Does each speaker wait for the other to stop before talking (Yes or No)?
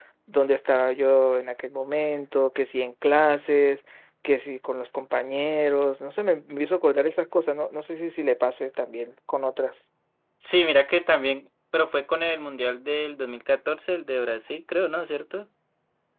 Yes